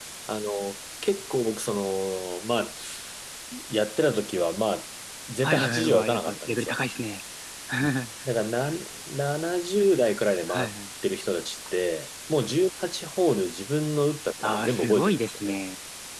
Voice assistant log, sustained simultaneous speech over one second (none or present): present